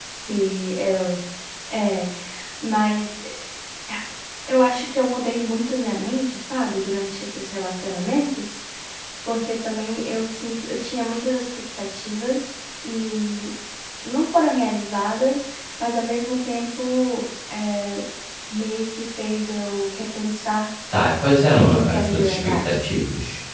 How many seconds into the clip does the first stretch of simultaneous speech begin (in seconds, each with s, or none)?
21.6 s